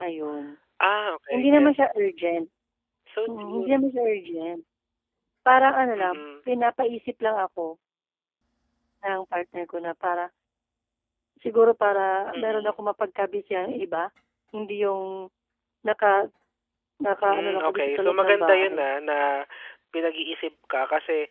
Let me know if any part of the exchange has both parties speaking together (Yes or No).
Yes